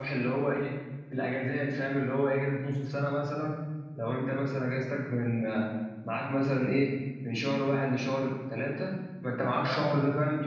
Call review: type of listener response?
listening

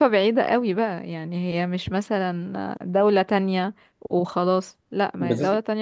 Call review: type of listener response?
listening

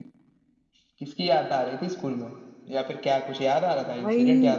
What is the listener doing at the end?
taking over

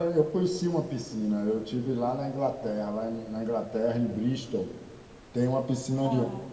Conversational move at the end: listening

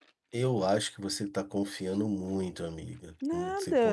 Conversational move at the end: taking over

